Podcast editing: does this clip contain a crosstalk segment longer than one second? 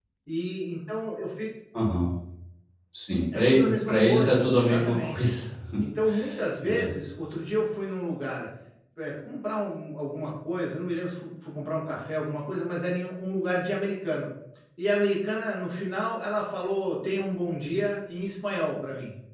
Yes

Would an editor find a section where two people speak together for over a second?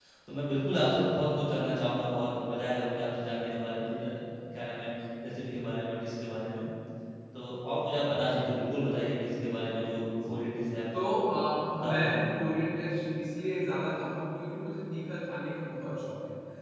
No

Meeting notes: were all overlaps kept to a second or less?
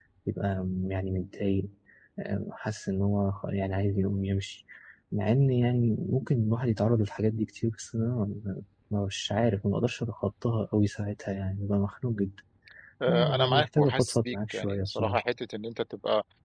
No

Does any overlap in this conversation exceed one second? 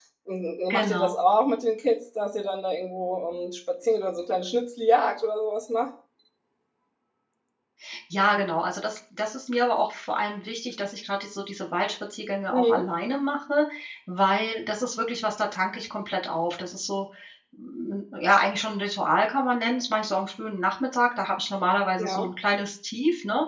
No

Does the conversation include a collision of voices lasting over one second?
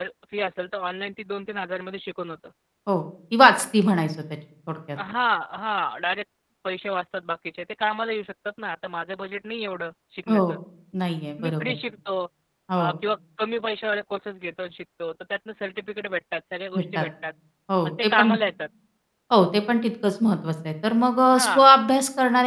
No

